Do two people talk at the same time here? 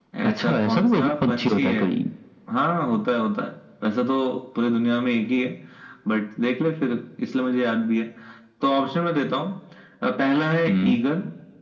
Yes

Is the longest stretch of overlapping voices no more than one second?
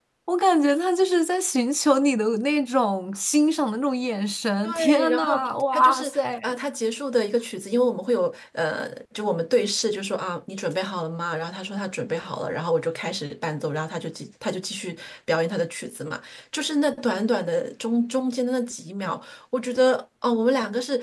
No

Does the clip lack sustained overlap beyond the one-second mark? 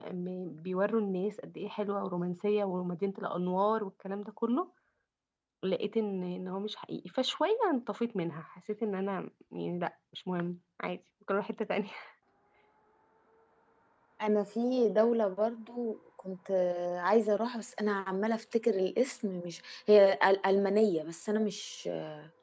Yes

